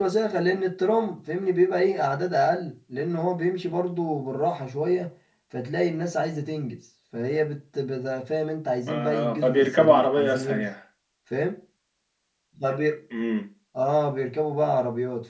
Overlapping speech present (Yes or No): Yes